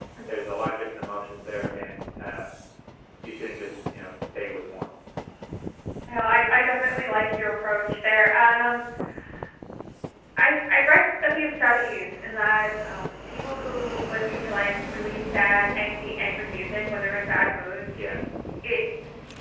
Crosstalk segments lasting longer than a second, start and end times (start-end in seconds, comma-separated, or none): none